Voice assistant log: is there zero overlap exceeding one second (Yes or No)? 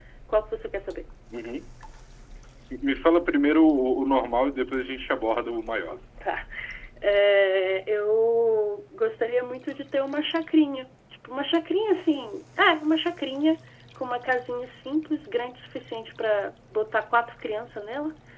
Yes